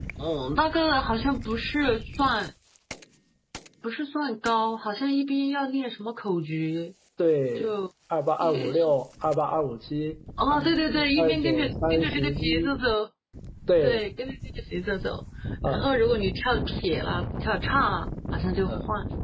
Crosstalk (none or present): present